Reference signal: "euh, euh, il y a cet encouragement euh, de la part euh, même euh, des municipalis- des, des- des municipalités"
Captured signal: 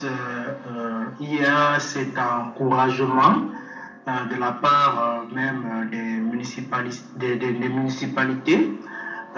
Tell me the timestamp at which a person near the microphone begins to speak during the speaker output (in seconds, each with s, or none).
none